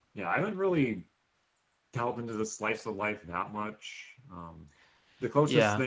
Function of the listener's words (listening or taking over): listening